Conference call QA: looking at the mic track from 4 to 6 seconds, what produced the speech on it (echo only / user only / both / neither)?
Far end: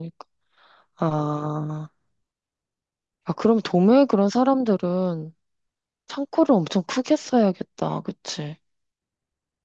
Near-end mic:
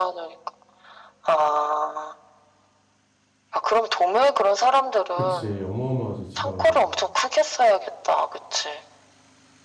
both